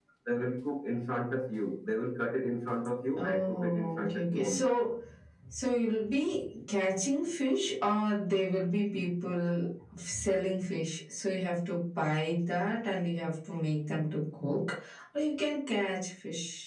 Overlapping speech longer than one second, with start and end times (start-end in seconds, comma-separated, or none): 3.2-4.7